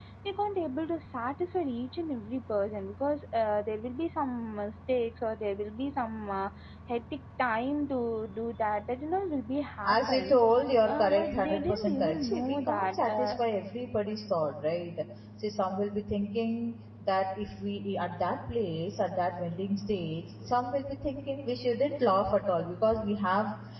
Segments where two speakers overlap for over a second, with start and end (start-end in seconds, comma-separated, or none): 10.9-13.3